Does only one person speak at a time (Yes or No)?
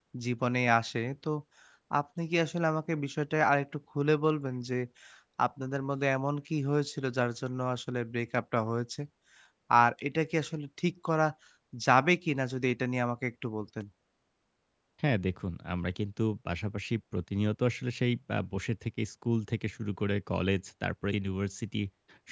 Yes